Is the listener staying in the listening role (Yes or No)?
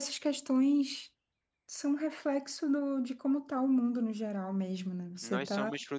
No